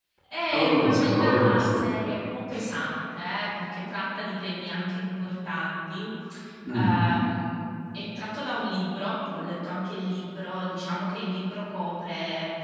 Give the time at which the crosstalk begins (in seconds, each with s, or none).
0.5 s